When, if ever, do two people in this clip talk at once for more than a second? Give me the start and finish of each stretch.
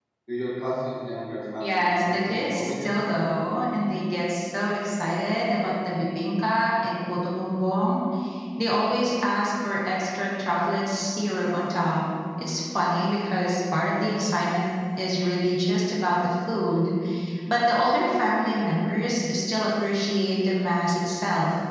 1.6-2.9

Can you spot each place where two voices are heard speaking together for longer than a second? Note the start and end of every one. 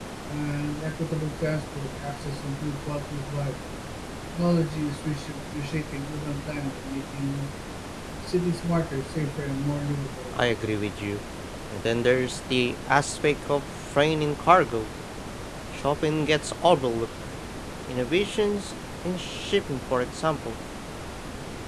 none

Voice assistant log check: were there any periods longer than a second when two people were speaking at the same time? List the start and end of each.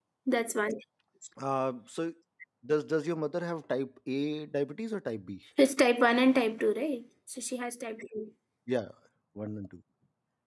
none

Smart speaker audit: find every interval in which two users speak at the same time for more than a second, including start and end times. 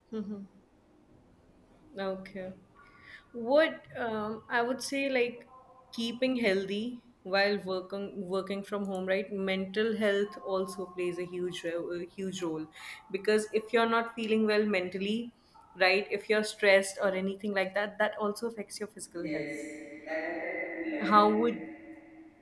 none

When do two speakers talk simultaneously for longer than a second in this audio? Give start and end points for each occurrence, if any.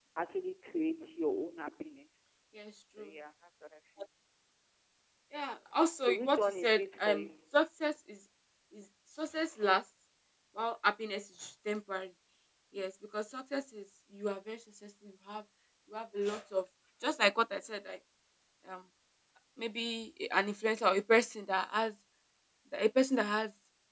6.1-7.3

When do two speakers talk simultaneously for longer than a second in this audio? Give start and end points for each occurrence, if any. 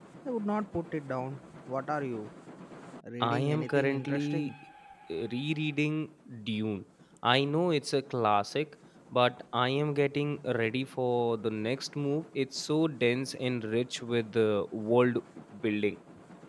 3.2-4.5

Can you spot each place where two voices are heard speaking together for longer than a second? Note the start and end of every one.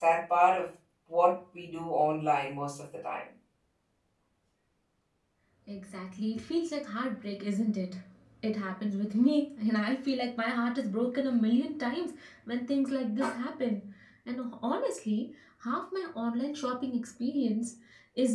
none

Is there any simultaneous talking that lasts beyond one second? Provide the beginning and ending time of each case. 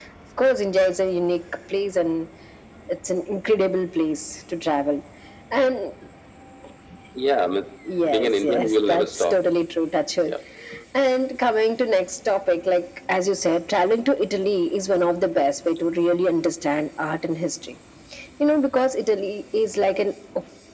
8.1-9.3

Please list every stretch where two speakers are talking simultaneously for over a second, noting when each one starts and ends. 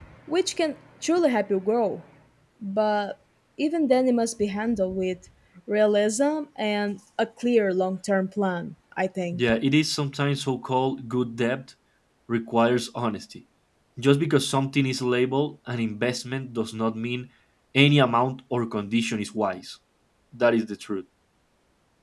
none

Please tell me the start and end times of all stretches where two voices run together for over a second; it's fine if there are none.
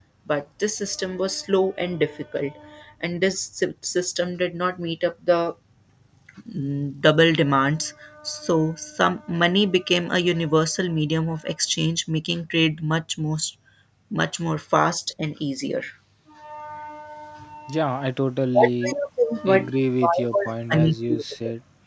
20.0-21.2

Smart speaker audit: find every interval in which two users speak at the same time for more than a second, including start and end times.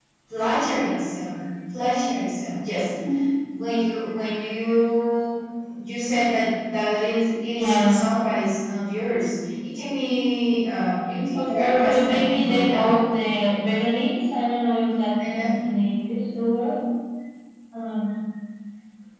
11.3-12.8

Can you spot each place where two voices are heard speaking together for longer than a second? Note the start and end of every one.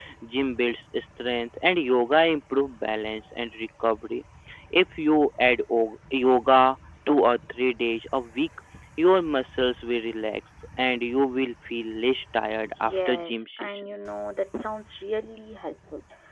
12.6-13.8

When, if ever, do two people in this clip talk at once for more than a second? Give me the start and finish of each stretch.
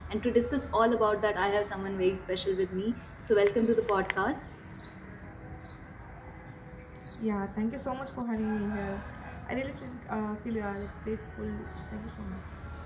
none

